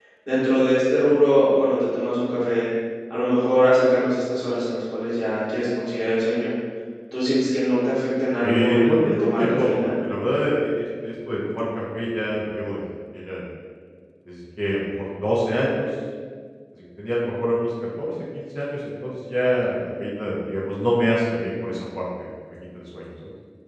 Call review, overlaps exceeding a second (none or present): present